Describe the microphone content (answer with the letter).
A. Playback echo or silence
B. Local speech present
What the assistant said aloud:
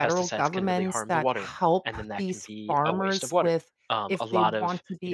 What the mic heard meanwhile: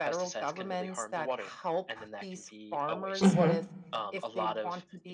B